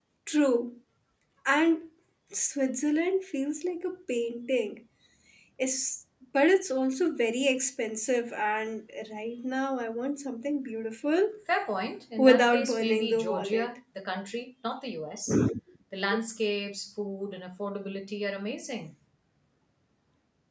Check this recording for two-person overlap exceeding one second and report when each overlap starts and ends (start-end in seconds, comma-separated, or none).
12.2-13.7